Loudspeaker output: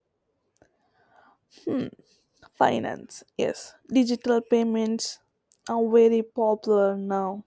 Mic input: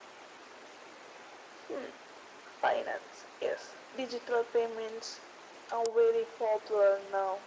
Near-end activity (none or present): none